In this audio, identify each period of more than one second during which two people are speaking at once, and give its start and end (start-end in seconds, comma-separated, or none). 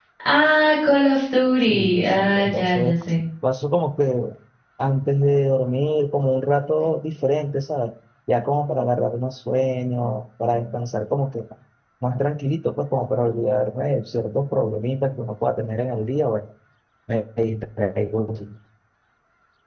1.7-3.0